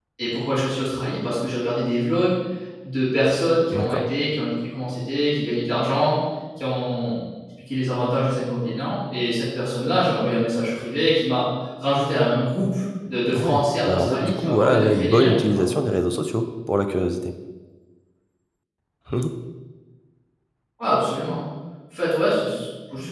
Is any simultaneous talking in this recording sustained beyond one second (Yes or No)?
Yes